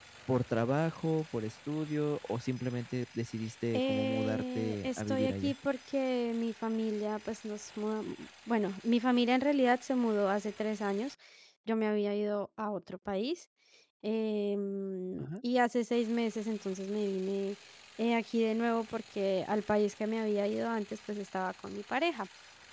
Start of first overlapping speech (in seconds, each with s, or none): 3.7 s